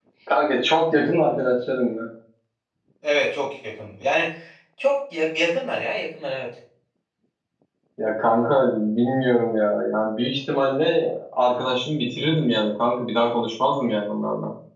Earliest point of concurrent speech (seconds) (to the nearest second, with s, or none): none